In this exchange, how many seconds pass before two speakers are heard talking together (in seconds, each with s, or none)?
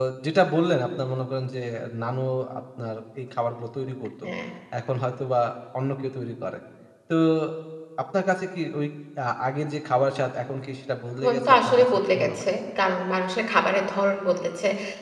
11.2 s